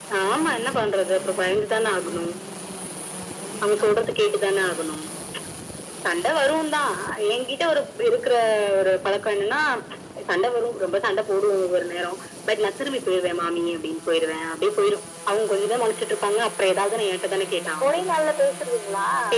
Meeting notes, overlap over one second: none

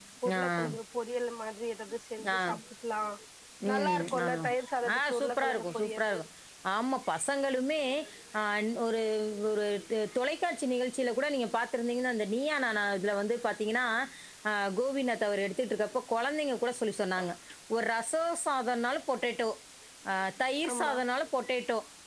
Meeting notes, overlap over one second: present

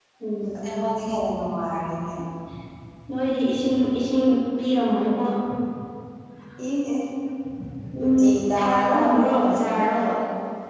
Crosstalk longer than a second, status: present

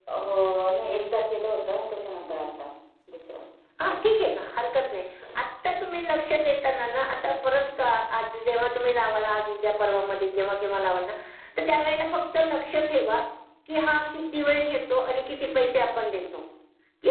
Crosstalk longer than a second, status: none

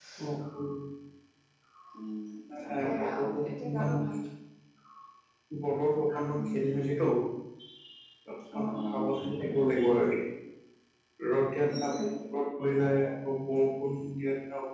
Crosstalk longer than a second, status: present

